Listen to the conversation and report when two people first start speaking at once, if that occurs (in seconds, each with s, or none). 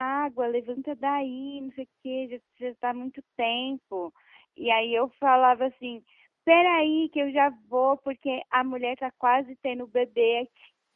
none